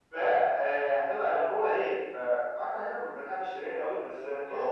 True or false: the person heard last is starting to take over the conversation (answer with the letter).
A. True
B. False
A